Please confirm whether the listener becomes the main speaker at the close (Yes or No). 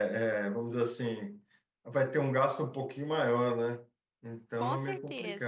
Yes